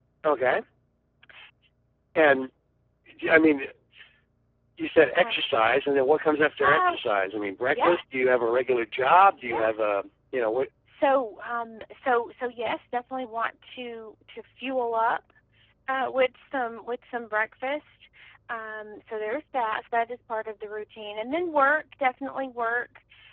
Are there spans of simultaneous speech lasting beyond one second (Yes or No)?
No